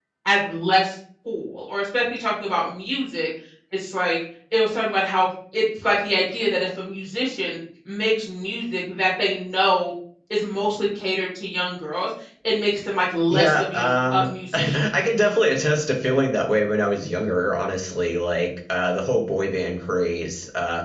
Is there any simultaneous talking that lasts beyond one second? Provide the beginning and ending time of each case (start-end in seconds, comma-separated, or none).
13.3-14.8